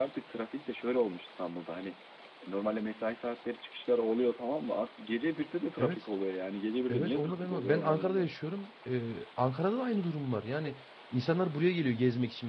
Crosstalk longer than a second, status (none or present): present